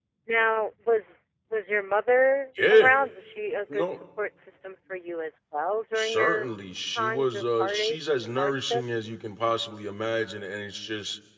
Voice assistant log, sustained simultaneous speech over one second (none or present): present